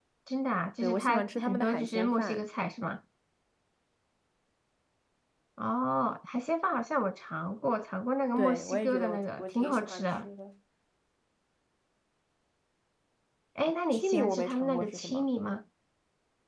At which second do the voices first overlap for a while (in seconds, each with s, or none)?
0.8 s